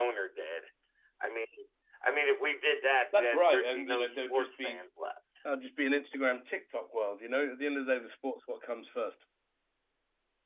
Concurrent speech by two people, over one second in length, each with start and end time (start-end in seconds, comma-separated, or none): 3.1-4.8